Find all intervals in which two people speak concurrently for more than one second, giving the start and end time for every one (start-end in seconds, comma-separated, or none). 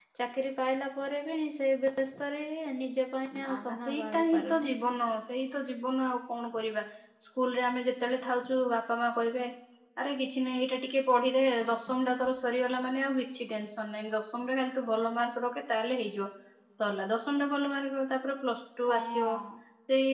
3.4-4.7